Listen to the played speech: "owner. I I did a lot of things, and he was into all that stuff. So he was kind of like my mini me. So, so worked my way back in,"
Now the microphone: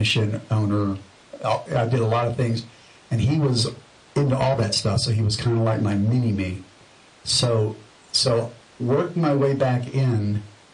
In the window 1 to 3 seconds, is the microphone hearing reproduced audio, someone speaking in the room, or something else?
echo only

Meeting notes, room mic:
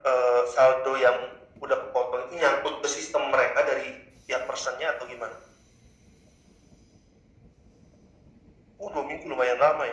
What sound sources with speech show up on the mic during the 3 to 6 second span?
echo only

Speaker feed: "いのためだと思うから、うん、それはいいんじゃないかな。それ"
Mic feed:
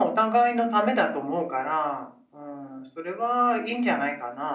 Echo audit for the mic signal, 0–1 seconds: echo only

